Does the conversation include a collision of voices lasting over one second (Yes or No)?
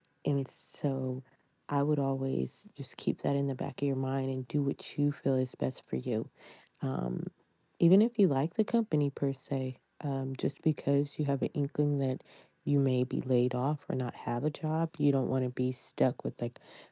No